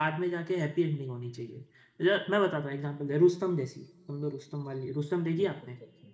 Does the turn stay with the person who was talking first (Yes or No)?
No